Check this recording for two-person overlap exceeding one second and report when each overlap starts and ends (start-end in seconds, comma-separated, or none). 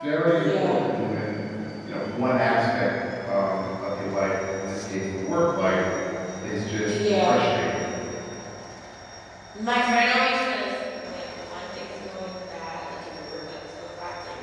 none